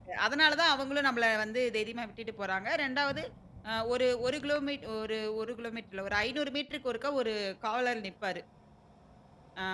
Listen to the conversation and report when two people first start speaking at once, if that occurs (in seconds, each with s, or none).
none